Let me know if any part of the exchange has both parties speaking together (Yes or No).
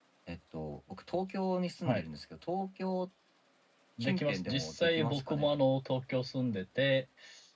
Yes